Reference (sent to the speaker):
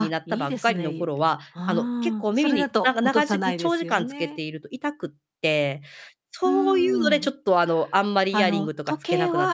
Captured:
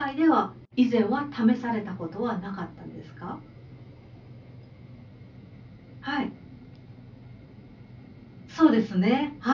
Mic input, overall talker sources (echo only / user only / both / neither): user only